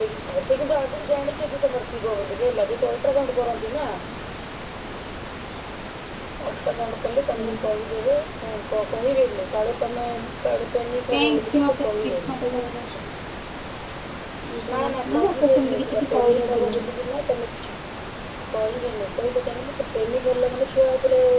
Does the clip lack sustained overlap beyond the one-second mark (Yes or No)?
No